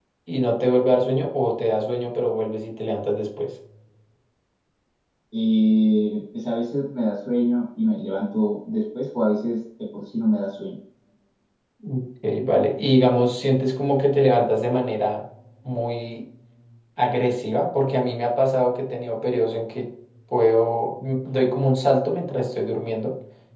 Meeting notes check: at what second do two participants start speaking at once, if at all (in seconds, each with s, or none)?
none